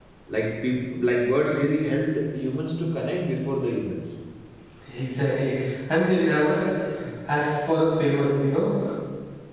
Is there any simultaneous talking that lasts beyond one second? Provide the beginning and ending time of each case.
none

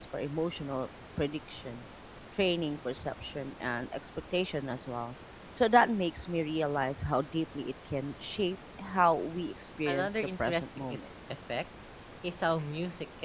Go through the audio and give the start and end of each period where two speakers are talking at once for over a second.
9.9-11.1

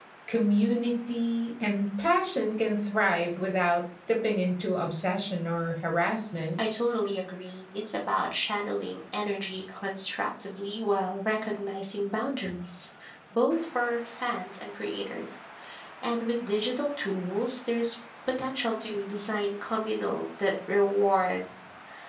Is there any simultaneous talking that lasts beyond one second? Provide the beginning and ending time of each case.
none

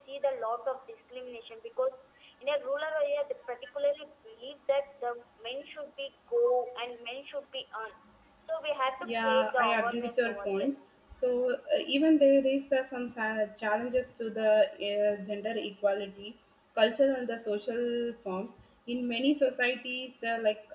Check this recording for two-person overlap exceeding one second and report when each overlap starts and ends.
9.0-10.7

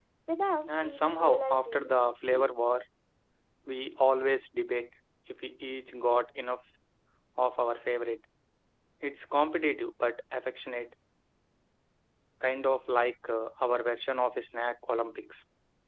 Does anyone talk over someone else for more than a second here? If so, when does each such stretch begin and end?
0.7-1.9

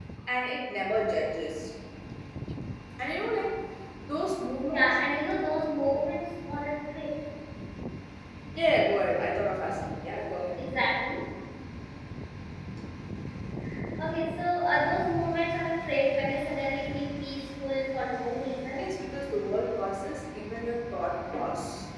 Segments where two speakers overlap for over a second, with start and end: none

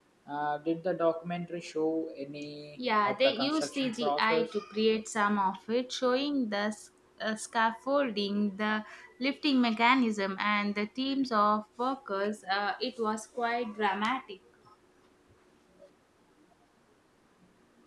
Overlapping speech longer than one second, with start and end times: 3.0-4.5

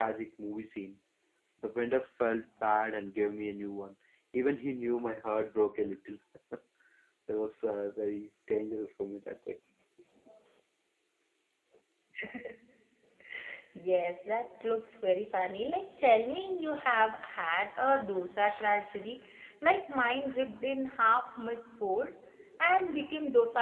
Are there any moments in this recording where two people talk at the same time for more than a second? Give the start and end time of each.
none

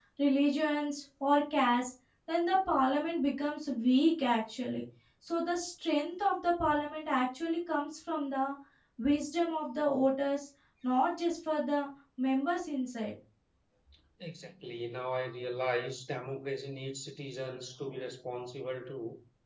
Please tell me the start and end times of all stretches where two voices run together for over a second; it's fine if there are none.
none

